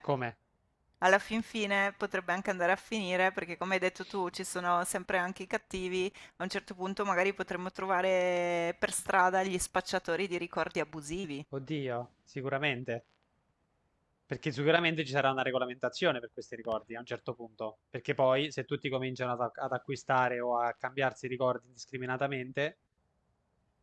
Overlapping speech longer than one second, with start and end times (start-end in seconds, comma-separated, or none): none